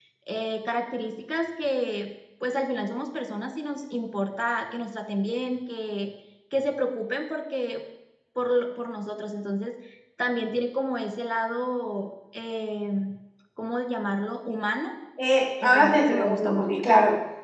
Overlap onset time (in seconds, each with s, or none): 15.6 s